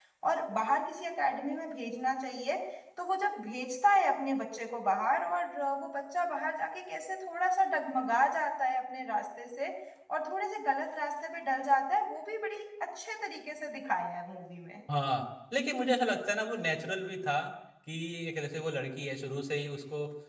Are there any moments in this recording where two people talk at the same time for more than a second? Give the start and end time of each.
none

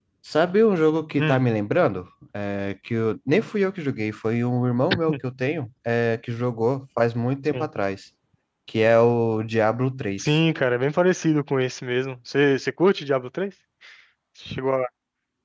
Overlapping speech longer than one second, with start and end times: none

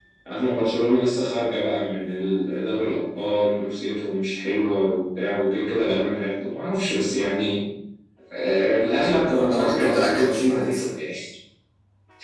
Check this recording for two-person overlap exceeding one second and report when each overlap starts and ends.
9.2-10.8

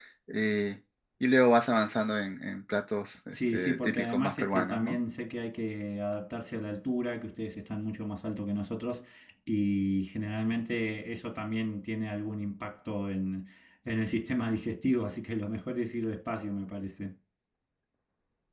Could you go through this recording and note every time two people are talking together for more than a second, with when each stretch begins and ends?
3.3-5.0

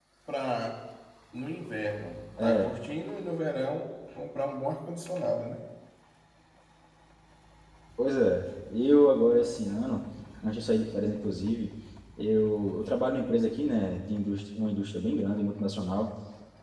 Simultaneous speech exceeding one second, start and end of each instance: none

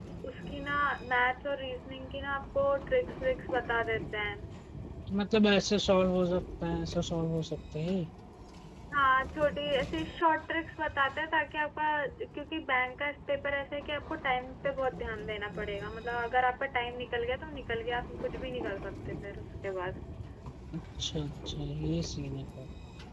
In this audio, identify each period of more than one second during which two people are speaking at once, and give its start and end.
none

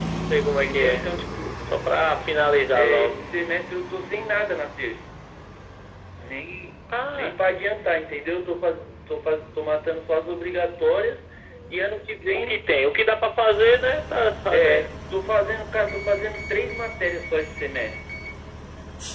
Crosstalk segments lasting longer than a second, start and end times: none

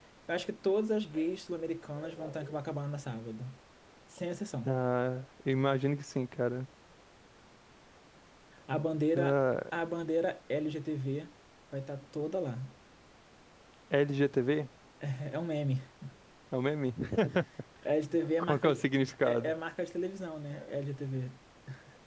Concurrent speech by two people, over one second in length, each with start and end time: none

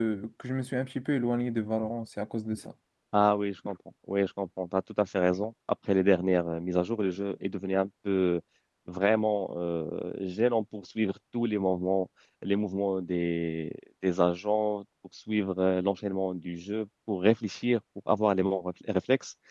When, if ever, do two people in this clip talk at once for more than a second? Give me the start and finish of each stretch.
none

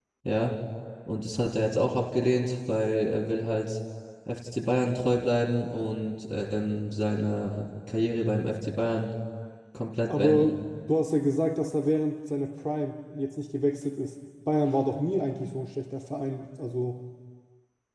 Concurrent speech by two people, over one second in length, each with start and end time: none

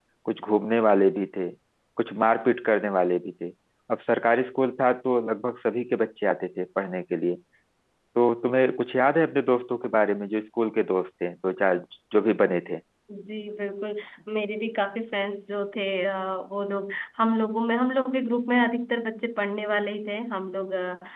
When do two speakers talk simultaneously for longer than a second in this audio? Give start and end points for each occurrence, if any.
none

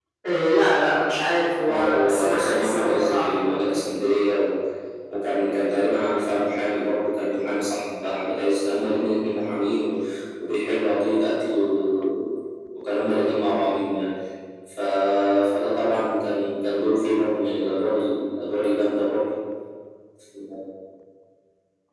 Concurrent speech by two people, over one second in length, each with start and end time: 1.7-3.8

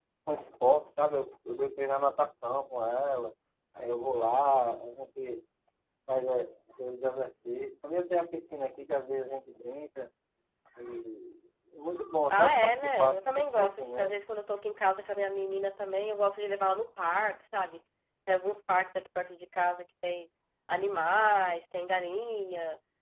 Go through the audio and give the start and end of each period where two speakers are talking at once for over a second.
12.3-14.1

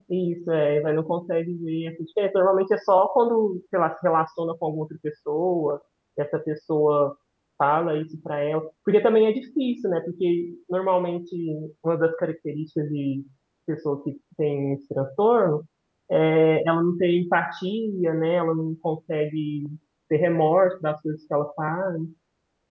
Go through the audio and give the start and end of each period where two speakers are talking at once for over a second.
none

